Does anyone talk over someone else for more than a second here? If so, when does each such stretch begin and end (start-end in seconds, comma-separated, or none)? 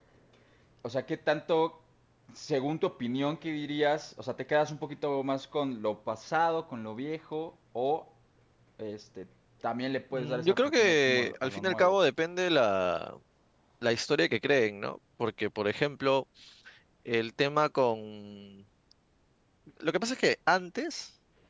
10.1-11.9